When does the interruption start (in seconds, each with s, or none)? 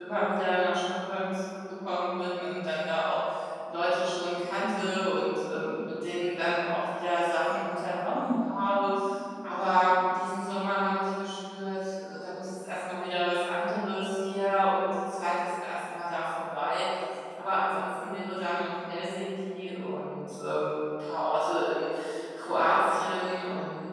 none